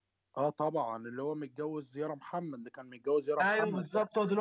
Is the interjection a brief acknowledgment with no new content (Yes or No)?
No